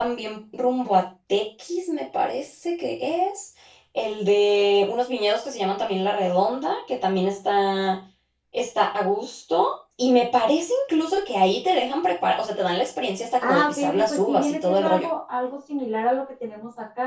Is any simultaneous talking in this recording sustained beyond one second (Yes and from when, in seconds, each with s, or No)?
Yes, from 13.4 s